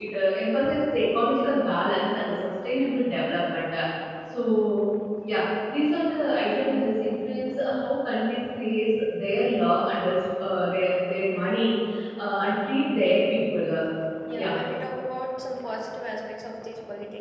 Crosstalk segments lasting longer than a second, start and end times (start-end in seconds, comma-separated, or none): none